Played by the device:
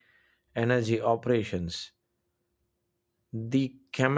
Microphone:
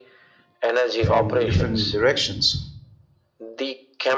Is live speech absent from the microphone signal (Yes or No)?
No